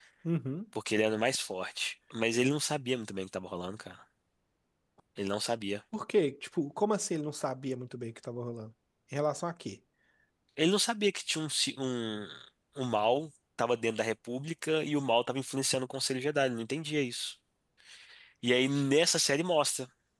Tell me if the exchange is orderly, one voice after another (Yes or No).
Yes